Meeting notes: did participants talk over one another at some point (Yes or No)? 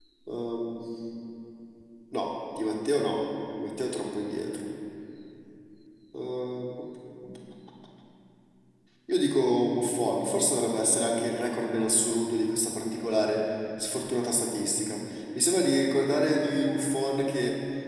No